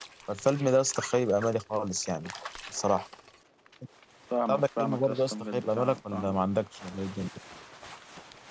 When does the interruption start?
4.5 s

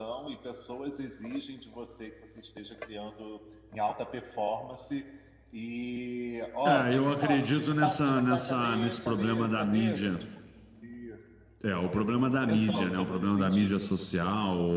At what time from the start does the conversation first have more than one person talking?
6.7 s

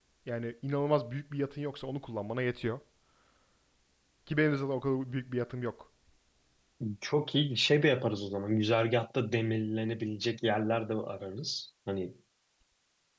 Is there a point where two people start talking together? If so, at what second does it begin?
none

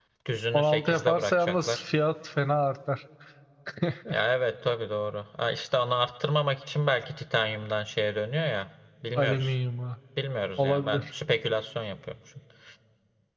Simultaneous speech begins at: 0.5 s

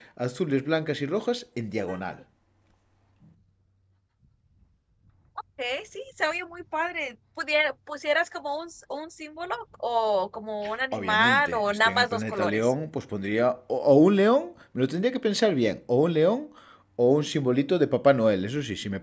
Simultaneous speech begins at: 10.9 s

